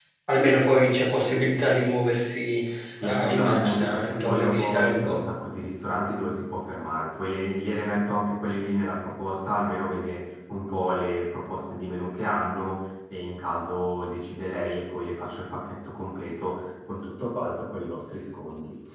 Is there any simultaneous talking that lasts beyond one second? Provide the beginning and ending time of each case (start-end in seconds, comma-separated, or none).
3.0-5.2